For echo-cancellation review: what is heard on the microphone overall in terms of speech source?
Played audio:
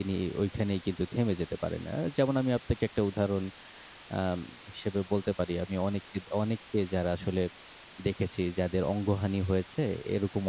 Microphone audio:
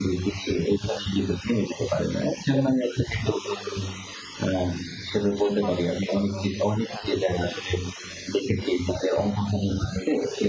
both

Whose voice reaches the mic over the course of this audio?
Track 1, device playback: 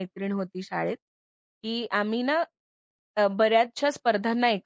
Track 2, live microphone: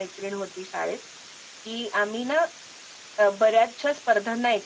echo only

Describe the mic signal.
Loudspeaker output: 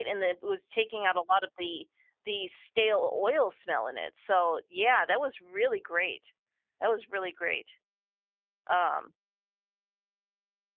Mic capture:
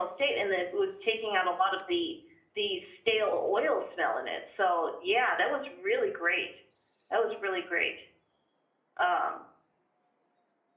echo only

